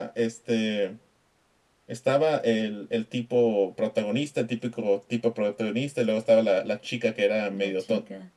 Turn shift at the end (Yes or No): No